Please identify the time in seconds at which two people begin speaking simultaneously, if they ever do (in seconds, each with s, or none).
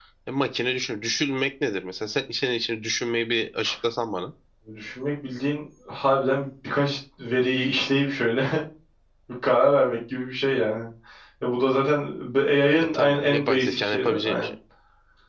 12.8 s